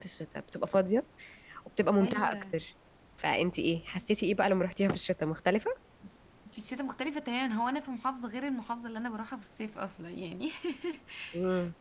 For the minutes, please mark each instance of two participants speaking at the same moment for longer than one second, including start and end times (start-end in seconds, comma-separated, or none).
none